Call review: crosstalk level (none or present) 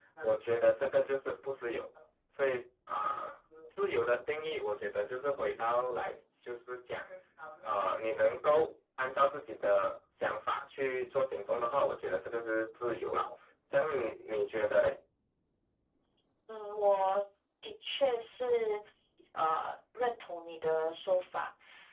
none